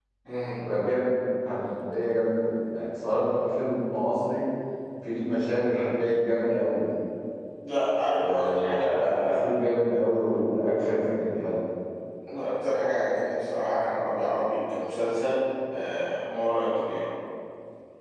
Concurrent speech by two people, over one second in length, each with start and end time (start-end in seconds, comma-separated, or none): 8.1-9.4